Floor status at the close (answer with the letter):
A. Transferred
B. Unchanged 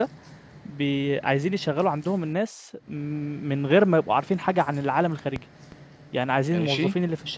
B